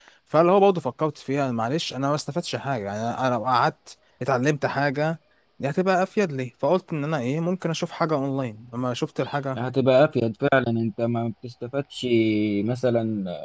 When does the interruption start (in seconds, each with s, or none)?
none